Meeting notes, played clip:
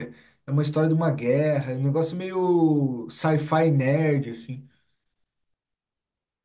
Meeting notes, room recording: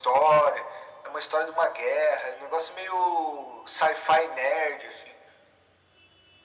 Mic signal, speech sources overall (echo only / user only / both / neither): echo only